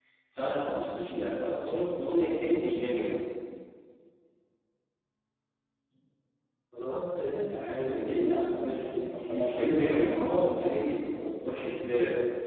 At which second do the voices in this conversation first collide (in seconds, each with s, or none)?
7.5 s